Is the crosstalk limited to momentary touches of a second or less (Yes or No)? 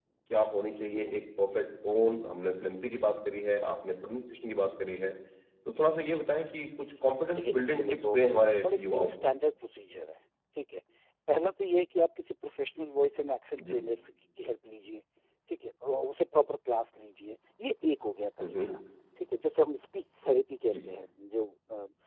No